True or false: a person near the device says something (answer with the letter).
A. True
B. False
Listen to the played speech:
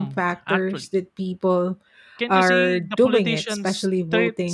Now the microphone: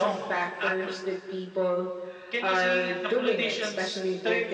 B